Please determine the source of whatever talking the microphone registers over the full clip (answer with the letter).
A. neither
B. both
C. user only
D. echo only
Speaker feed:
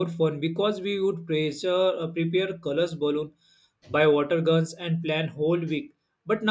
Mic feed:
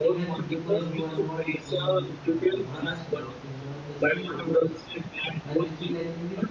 B